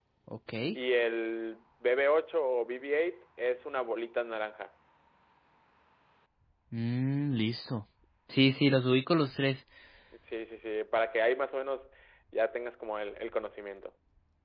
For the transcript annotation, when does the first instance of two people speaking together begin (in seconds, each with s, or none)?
none